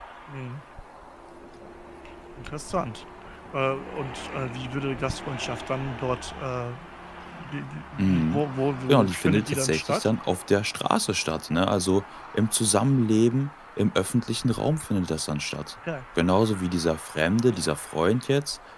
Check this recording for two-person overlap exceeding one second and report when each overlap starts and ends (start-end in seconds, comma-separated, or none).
8.9-10.1